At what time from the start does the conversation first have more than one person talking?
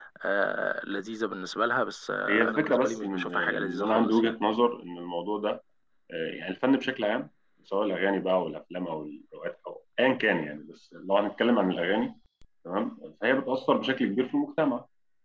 2.3 s

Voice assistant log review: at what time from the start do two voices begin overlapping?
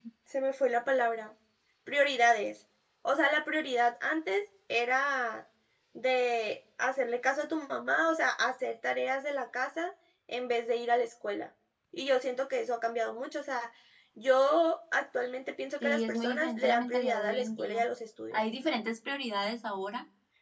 15.8 s

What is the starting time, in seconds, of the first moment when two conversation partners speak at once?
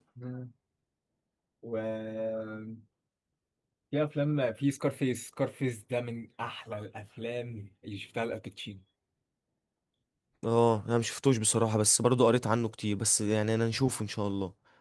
none

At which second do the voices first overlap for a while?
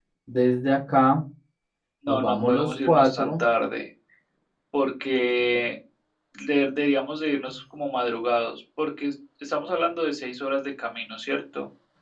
2.1 s

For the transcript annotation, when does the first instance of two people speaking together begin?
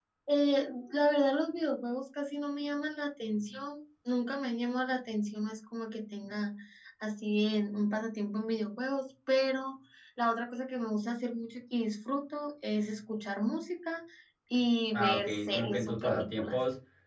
14.9 s

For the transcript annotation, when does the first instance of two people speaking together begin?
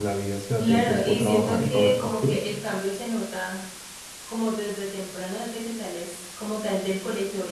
0.6 s

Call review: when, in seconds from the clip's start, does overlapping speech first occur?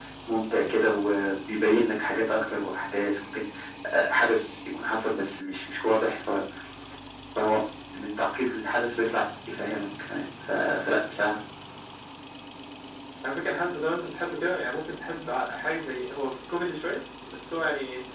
none

